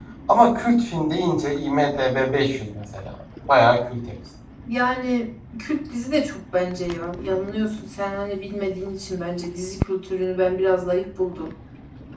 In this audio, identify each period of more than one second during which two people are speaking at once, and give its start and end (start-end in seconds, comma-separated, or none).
none